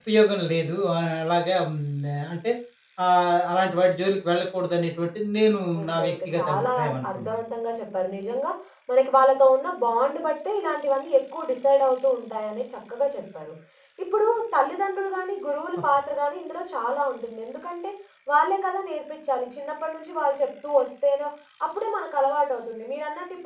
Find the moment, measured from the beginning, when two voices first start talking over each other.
5.8 s

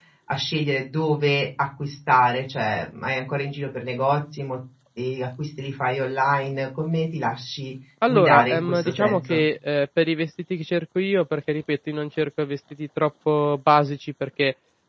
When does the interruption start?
8.0 s

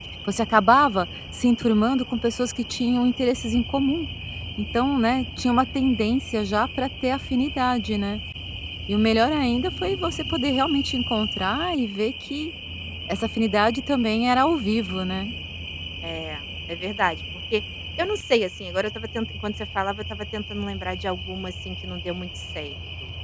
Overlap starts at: none

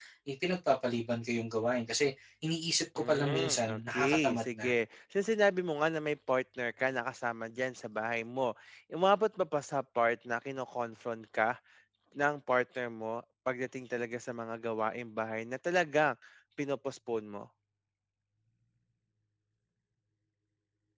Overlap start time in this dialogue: 3.0 s

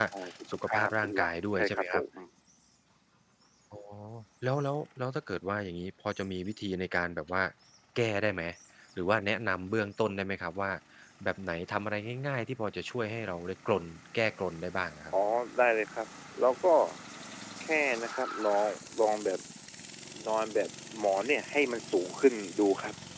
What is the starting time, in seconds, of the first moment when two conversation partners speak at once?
0.7 s

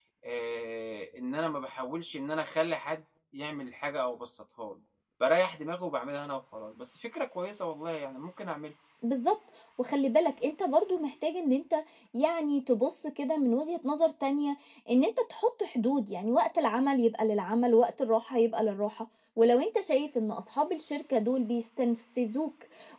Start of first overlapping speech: none

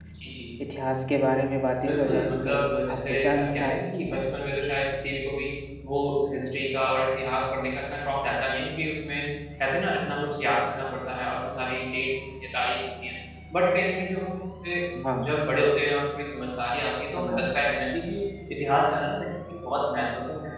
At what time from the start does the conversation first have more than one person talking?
1.9 s

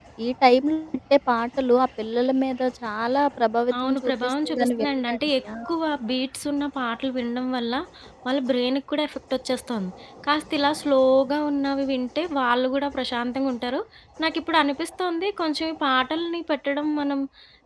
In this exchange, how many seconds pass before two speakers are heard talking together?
3.7 s

